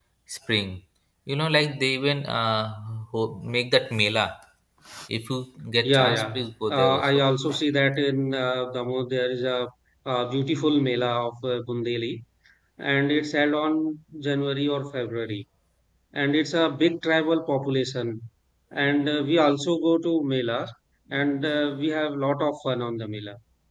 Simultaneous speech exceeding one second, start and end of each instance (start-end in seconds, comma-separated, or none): 5.8-7.2